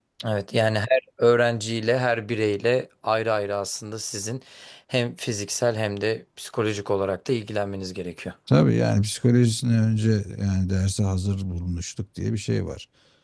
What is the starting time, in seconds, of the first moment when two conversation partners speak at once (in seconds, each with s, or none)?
none